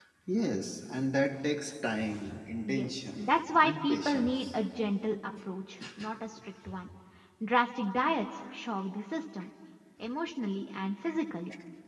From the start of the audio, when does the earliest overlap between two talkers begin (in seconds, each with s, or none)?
2.6 s